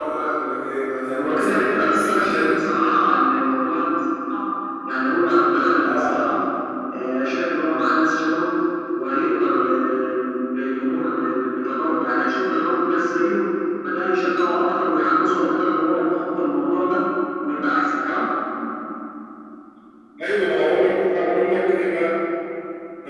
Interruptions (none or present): present